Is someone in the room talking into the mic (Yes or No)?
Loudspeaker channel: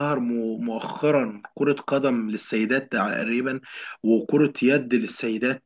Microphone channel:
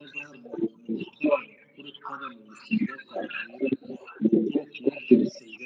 No